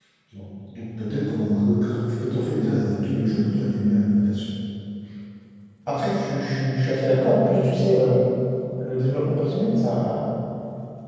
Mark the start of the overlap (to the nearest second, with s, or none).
none